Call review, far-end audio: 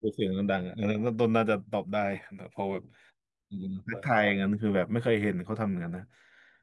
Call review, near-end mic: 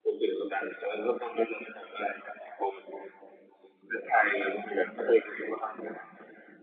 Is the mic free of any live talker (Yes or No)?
Yes